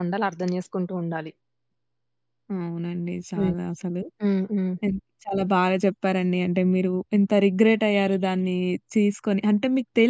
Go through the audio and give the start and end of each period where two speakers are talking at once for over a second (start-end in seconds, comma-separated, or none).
none